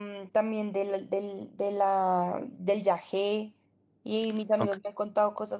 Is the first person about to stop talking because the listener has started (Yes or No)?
No